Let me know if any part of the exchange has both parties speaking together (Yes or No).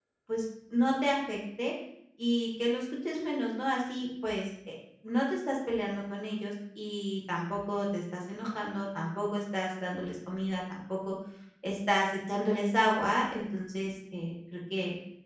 No